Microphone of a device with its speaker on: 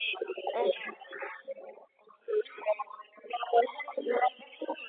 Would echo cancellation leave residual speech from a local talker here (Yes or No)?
Yes